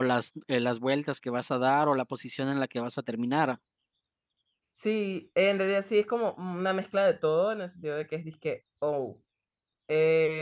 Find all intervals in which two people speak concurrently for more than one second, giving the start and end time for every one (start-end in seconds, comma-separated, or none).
none